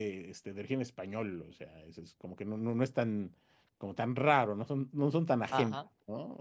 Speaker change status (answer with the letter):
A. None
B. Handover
A